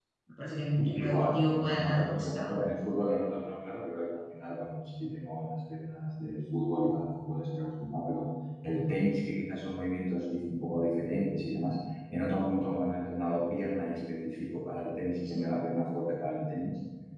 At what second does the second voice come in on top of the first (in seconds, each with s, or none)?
0.8 s